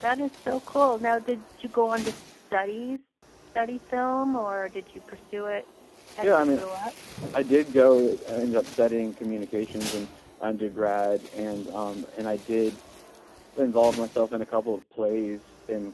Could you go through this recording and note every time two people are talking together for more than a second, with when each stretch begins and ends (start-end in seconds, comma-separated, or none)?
none